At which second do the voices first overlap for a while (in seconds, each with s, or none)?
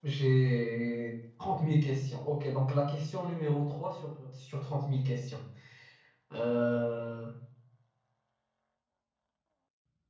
none